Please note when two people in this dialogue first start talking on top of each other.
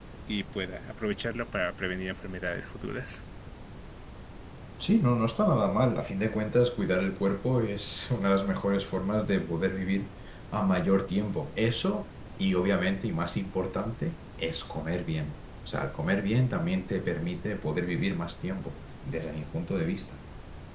none

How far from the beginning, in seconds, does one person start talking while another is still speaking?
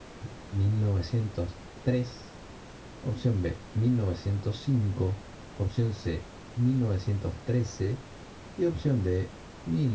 none

